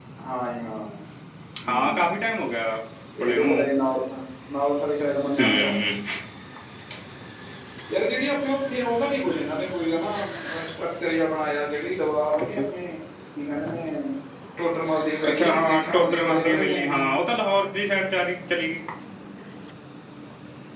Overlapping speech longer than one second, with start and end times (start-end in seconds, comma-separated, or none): 15.3-17.1